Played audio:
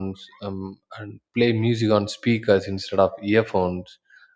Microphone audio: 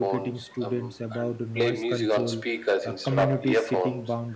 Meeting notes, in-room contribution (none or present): present